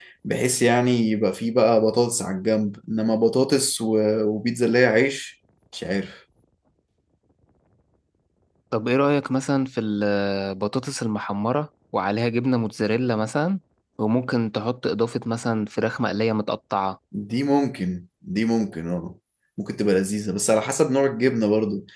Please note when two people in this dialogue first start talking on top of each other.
none

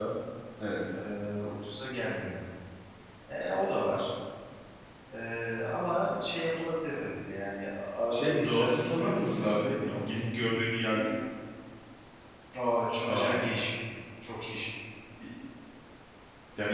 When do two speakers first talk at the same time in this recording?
8 s

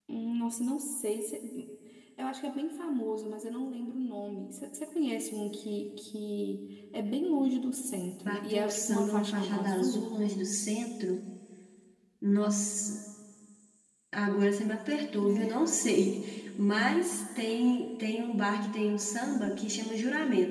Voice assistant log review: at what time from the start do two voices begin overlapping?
8 s

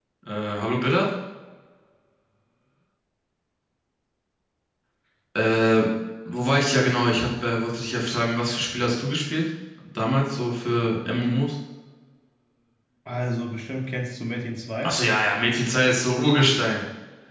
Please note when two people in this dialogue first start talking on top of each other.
none

